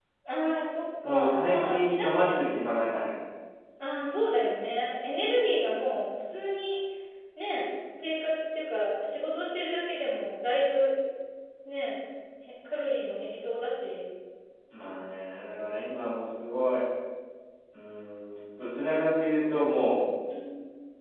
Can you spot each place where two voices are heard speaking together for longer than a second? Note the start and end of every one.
1.0-2.5

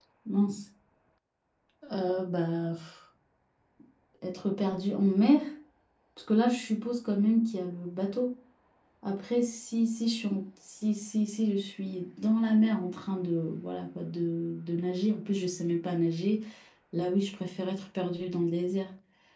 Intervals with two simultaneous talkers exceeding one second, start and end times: none

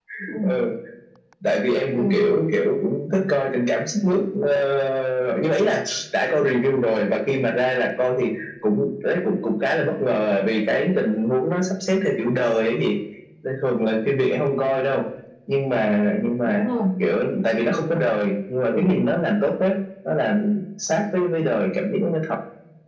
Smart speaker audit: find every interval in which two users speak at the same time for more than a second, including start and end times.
none

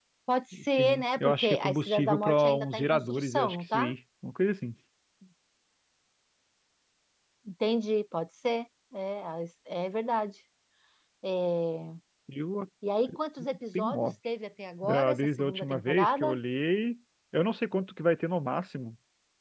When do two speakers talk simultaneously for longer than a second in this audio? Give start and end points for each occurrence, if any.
0.8-3.9, 14.8-16.4

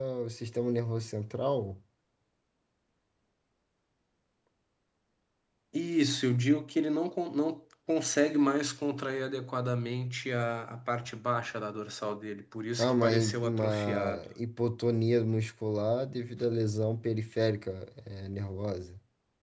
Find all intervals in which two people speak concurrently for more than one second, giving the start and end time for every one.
12.8-14.2

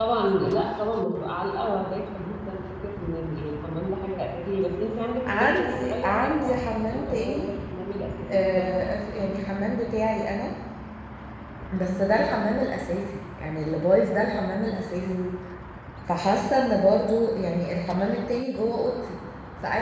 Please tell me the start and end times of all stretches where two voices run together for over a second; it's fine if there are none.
5.3-7.5

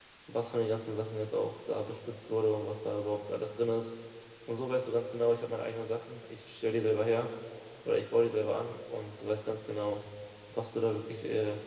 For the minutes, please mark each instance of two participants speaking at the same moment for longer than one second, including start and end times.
none

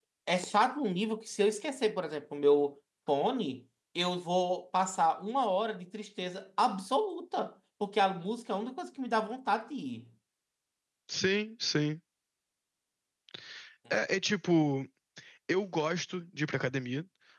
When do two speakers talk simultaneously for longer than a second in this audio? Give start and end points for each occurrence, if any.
none

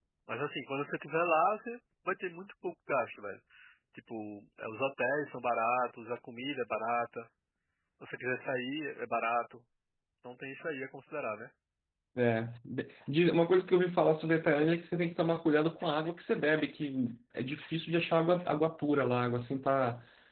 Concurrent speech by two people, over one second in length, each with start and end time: none

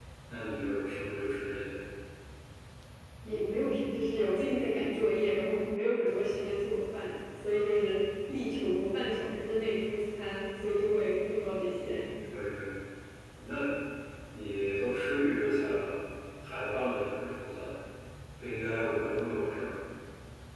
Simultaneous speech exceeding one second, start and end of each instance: none

